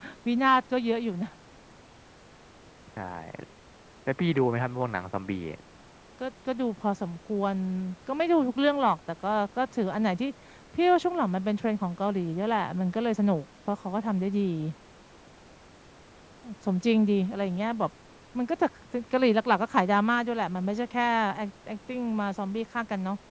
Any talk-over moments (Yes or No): No